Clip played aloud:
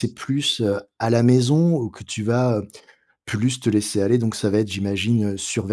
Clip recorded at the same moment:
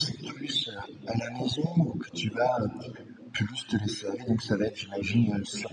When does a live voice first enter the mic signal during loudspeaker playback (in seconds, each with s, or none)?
none